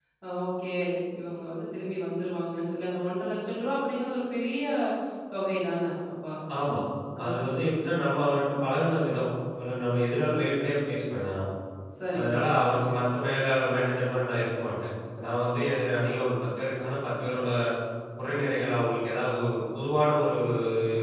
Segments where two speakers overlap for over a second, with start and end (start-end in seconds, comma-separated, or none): none